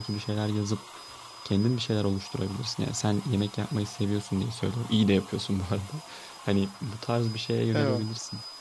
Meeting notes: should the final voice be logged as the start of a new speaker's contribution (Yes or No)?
No